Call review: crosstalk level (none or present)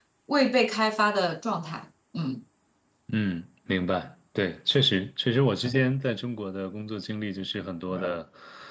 none